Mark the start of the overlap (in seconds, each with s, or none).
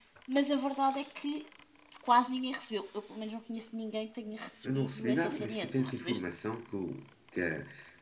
4.6 s